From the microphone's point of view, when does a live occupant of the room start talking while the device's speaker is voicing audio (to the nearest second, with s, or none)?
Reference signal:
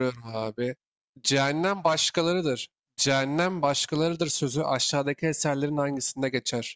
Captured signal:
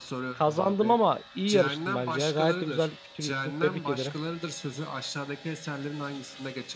0 s